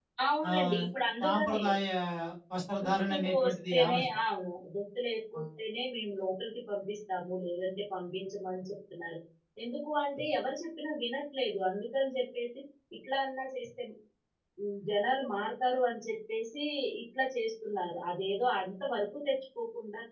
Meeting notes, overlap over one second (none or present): present